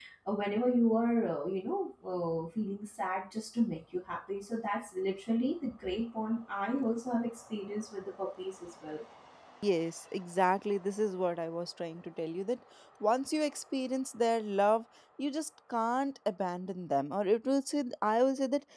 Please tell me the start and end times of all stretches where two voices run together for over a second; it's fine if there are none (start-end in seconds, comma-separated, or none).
none